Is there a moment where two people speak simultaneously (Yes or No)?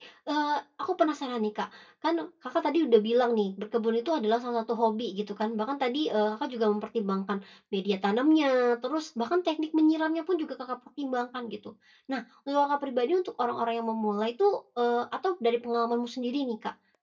No